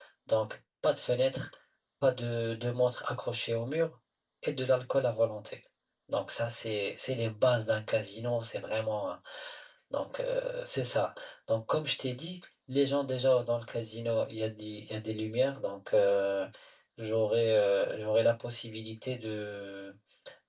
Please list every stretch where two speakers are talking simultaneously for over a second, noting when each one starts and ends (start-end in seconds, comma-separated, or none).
none